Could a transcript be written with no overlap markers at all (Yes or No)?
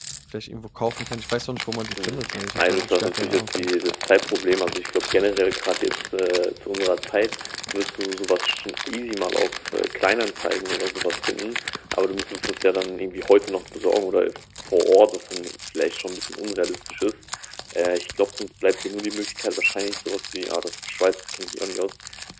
No